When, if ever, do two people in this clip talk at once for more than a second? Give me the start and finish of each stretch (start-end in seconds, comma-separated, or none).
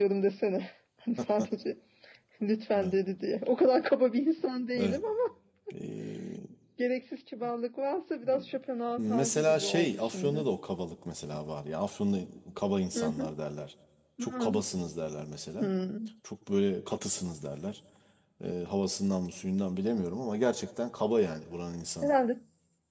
9.0-10.4